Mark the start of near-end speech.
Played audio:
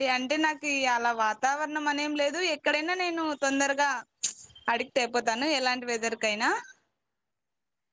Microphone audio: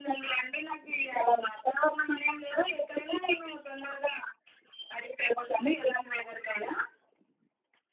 none

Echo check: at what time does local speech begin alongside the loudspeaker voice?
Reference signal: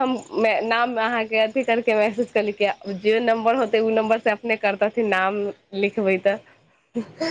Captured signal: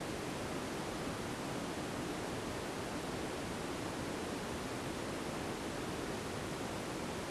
none

